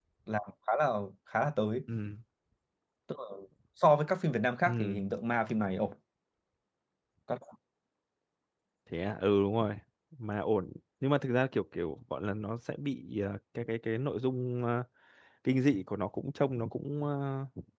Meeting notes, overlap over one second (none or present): none